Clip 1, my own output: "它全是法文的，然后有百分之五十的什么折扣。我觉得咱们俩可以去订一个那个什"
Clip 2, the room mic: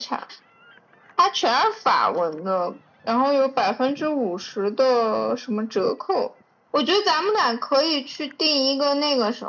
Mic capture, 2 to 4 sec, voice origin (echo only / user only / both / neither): echo only